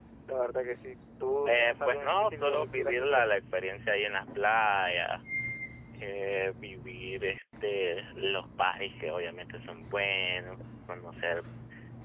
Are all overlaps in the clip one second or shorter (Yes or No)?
No